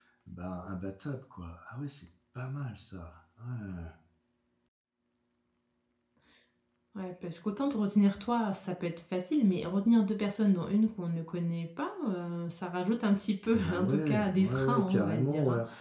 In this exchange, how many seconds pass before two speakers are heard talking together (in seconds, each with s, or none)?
13.5 s